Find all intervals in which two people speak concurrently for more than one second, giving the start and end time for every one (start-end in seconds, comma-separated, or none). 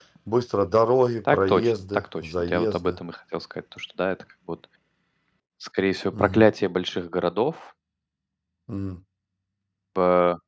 1.3-3.0